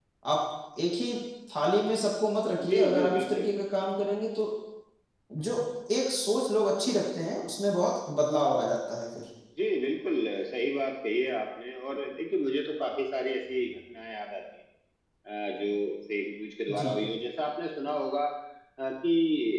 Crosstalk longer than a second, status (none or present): present